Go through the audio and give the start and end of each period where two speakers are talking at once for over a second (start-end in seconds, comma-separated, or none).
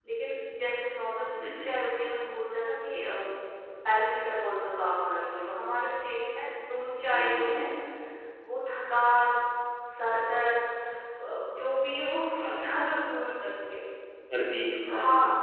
none